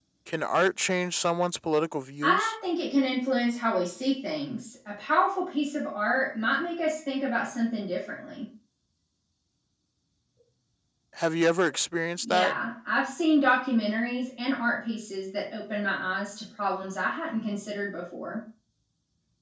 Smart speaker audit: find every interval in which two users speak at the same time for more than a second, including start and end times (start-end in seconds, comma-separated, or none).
none